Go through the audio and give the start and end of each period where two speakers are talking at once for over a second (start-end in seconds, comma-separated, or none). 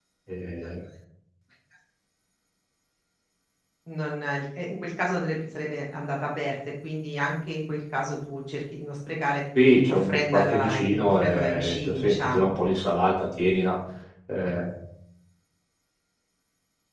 9.9-12.5